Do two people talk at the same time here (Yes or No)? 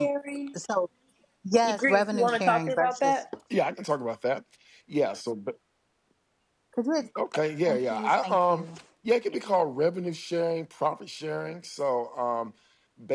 Yes